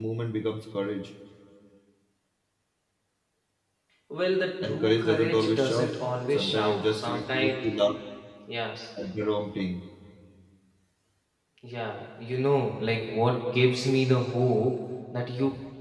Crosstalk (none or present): present